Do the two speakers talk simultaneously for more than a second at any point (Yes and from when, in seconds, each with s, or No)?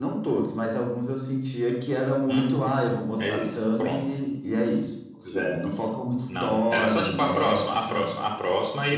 Yes, from 2.3 s